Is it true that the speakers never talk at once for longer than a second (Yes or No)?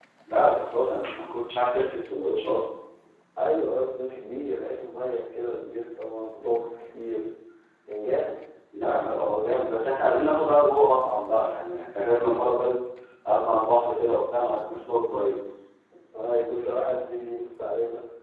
Yes